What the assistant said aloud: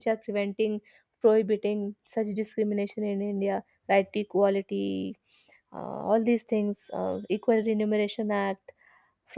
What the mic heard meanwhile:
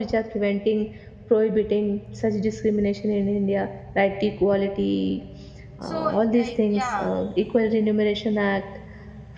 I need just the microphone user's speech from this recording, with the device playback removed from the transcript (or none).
so like yeah